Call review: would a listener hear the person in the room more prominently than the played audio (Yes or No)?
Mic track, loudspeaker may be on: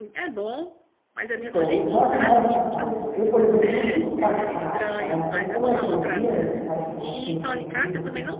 Yes